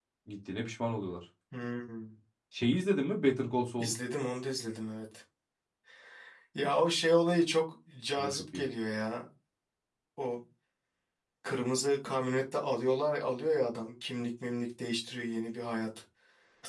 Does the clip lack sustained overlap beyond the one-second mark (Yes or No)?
Yes